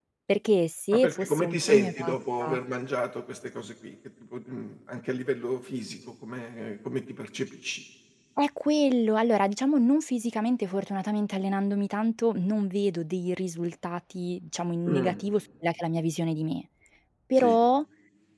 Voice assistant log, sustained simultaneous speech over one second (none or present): present